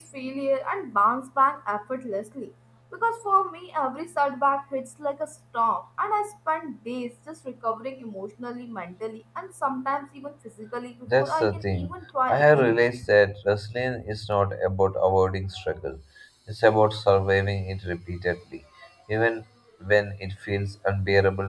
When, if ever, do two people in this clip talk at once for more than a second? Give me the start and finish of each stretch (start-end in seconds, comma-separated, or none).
11.2-12.8